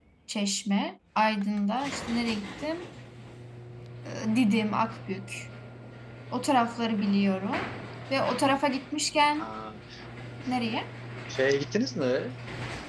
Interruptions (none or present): none